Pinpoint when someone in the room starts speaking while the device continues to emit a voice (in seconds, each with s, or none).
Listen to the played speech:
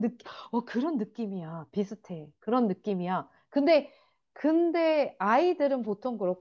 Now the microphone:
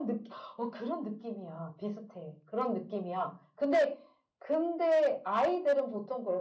none